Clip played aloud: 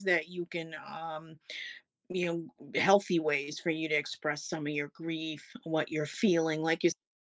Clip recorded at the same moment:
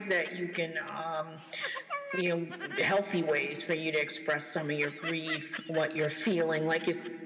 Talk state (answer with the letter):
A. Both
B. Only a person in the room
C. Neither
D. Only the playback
D